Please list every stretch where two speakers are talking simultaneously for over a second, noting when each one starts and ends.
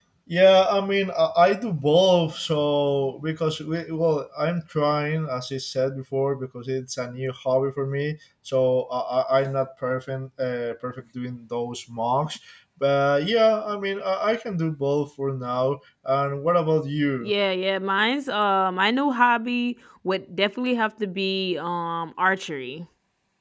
none

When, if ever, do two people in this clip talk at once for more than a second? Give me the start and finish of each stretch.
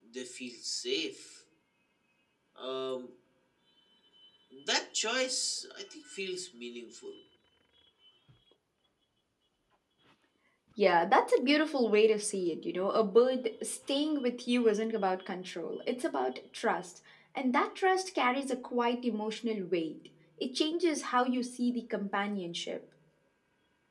none

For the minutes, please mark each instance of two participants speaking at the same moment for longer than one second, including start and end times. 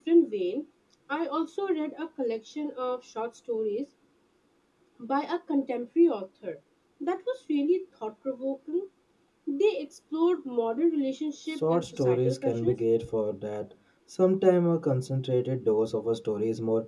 11.5-12.8

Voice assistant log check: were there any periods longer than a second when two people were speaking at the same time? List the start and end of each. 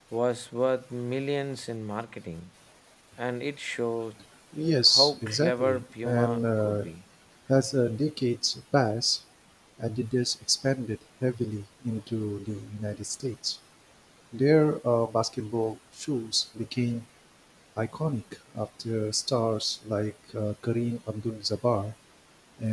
4.9-6.8

